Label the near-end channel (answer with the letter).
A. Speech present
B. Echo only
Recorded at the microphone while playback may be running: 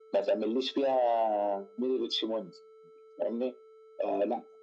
B